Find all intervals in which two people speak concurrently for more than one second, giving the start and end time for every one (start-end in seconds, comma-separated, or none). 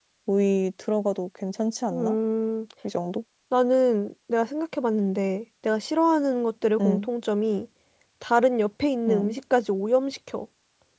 none